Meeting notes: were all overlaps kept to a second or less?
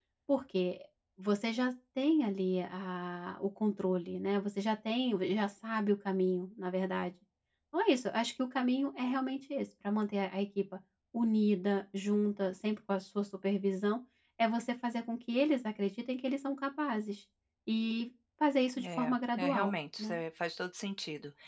No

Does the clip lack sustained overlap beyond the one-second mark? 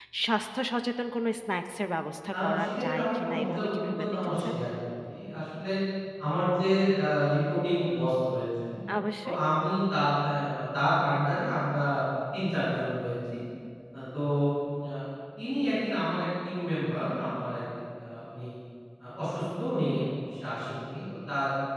No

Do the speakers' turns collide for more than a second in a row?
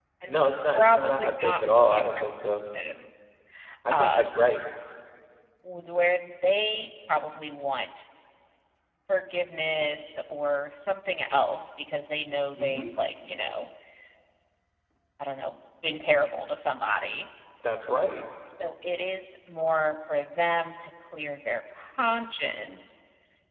Yes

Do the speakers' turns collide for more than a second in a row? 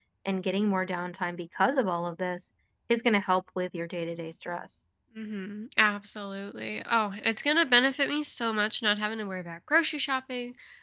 No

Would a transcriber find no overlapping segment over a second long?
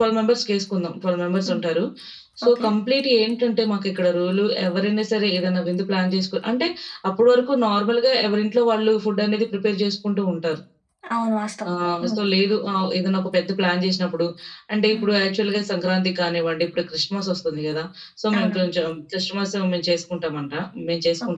Yes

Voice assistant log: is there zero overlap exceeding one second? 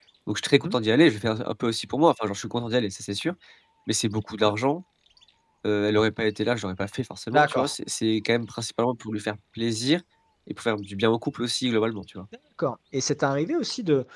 Yes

